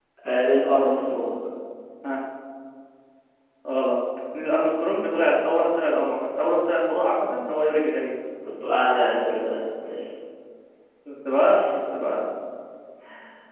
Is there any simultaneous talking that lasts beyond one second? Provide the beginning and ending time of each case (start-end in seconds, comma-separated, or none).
none